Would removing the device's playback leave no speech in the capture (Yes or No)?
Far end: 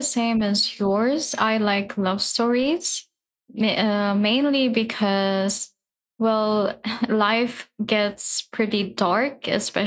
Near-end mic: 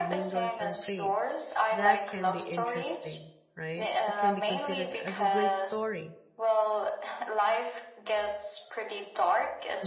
No